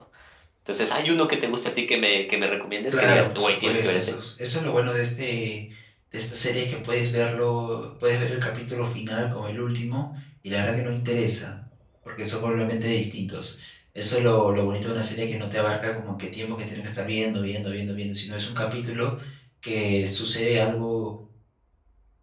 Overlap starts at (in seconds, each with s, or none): 2.9 s